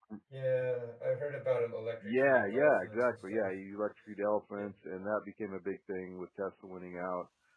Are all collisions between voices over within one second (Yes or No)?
No